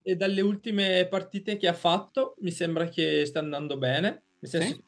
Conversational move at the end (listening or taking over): listening